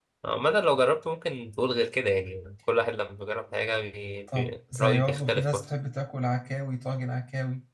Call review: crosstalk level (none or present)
present